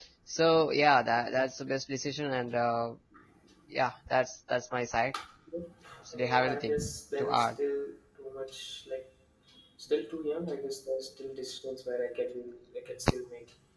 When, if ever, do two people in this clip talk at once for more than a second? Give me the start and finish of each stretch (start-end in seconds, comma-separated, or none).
6.1-7.5